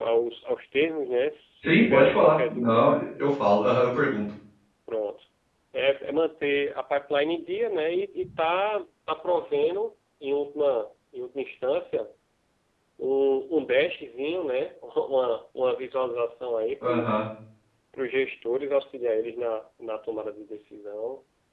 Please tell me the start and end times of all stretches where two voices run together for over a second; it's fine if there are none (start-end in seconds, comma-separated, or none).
1.6-2.9